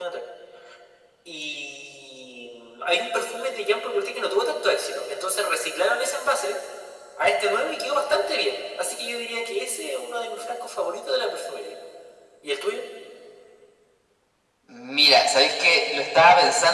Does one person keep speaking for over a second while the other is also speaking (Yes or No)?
No